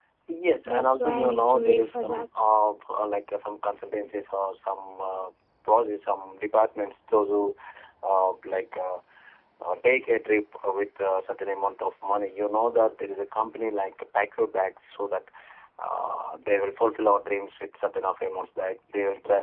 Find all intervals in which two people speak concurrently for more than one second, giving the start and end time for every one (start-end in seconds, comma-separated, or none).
0.7-2.2